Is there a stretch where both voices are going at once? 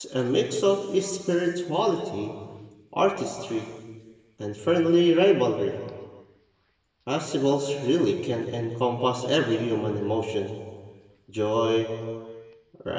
No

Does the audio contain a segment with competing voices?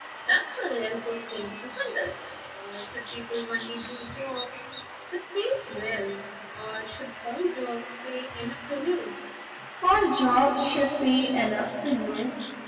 No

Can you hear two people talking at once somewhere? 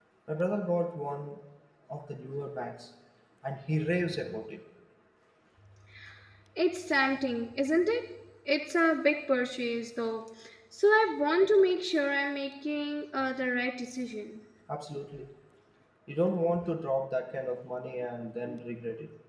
No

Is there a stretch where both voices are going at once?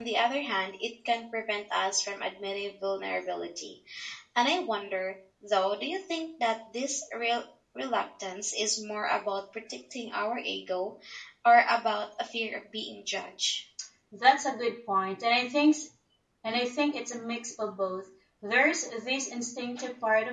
No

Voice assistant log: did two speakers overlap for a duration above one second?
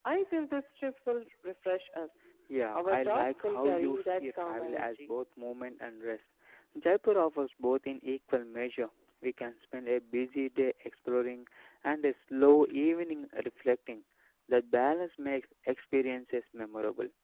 Yes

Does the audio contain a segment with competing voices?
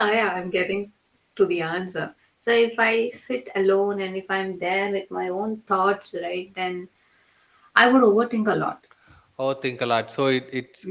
No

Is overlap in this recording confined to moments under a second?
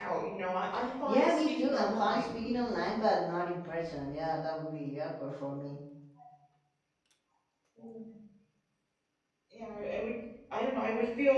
No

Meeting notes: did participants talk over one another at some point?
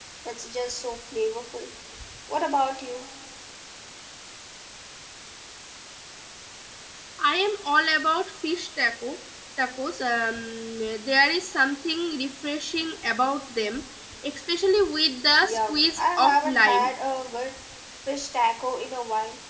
Yes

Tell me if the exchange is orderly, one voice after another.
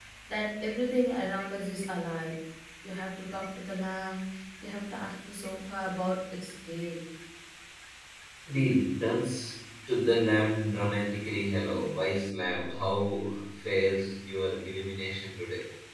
Yes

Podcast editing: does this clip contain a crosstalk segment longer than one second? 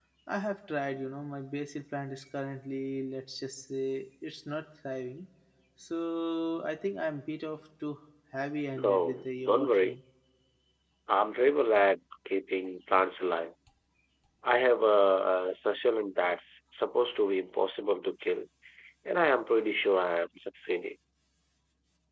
Yes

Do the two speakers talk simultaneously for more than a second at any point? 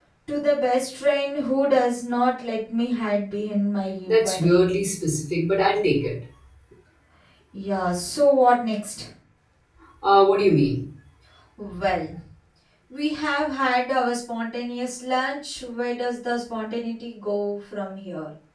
No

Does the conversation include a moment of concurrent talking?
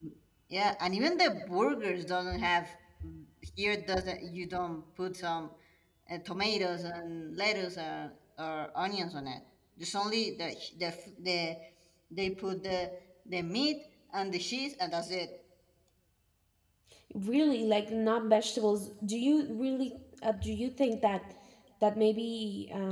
No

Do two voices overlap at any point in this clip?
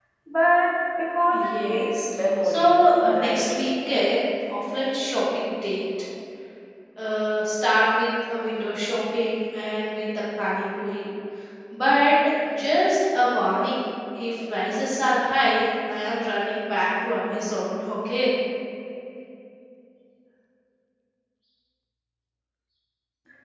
Yes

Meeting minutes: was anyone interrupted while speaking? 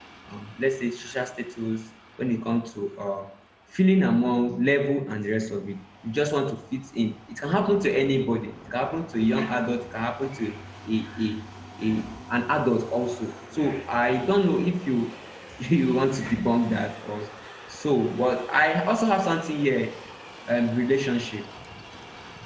No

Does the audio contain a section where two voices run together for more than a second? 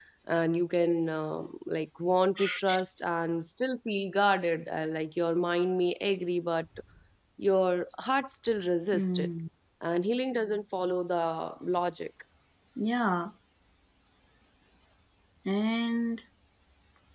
No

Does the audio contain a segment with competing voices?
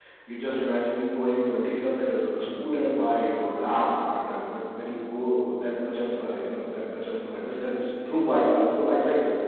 No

